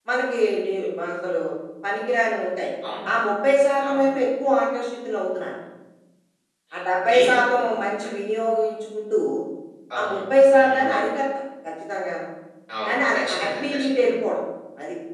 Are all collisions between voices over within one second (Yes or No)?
No